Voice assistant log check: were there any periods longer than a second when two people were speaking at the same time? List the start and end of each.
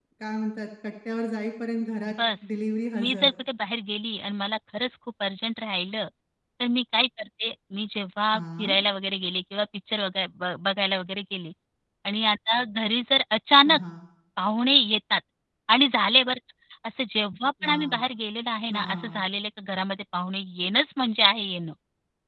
none

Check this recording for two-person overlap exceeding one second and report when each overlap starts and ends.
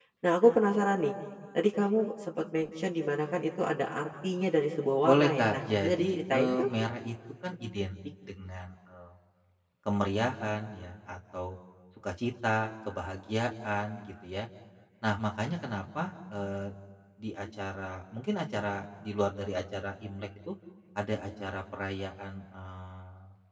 5.0-6.7

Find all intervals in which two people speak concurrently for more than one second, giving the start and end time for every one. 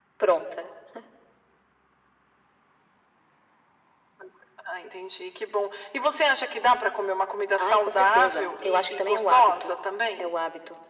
7.6-9.7

